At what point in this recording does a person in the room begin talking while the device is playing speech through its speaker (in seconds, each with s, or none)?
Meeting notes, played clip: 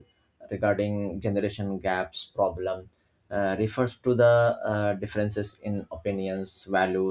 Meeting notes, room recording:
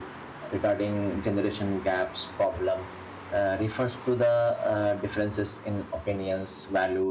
none